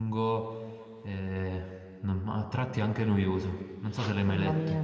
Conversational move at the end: taking over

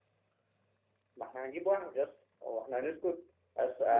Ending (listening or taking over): listening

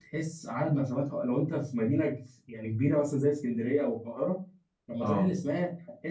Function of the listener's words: listening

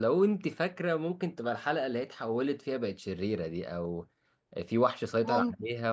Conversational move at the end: listening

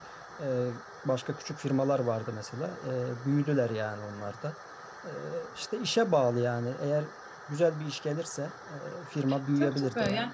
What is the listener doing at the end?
taking over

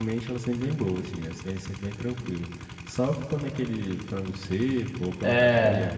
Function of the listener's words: taking over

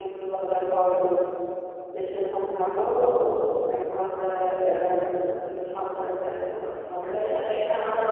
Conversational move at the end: taking over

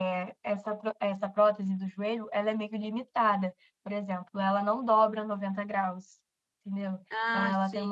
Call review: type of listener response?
listening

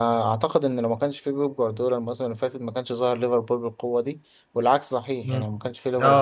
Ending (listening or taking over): taking over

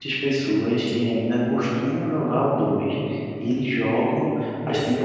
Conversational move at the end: listening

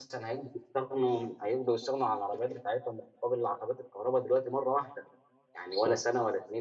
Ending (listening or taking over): listening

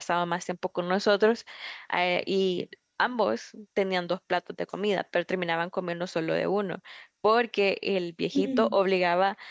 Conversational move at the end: listening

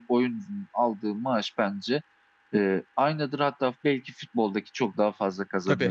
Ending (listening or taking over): taking over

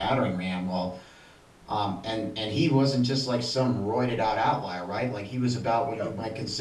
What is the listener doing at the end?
listening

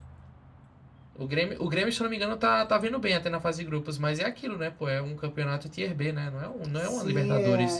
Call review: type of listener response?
taking over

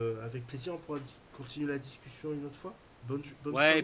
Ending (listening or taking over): taking over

